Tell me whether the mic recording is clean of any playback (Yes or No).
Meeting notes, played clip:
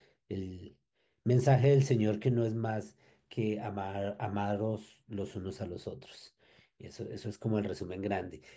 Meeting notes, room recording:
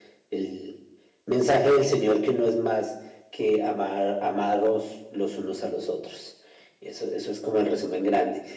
No